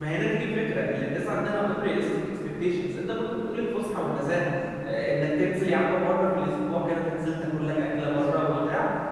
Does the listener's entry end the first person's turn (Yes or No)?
No